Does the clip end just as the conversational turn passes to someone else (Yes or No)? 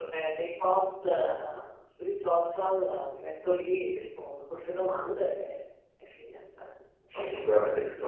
Yes